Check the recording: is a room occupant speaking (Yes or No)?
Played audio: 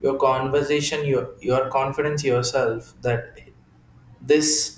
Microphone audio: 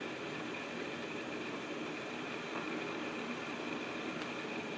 No